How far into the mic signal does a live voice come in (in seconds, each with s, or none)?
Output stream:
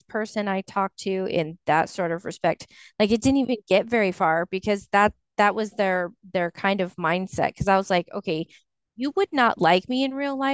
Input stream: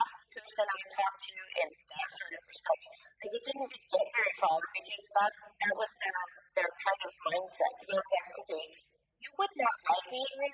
none